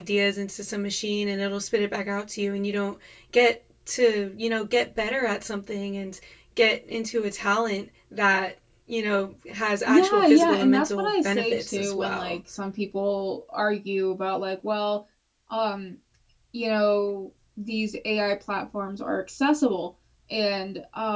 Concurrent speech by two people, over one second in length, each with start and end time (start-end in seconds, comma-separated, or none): 9.9-12.4